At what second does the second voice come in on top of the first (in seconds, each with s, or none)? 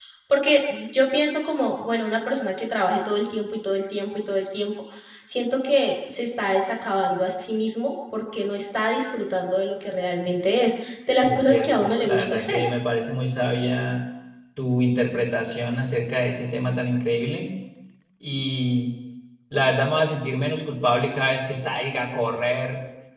11.2 s